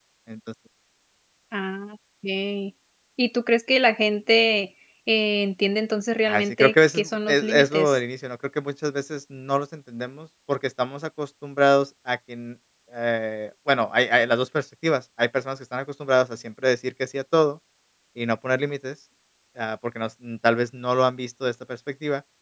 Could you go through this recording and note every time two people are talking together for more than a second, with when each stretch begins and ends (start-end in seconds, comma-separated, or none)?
6.3-8.0